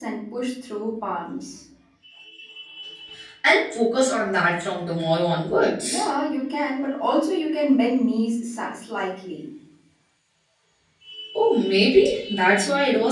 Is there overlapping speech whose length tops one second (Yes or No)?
No